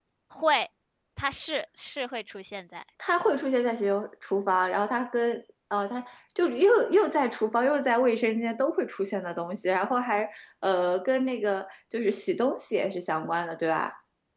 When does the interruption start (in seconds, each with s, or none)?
none